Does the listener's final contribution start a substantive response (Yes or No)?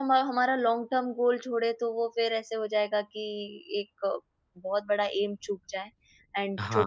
No